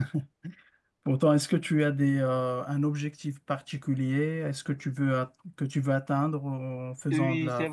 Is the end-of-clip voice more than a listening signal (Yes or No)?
Yes